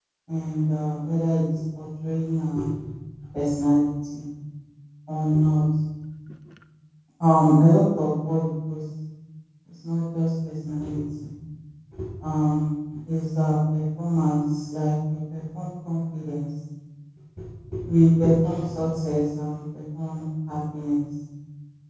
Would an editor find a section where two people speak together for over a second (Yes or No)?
No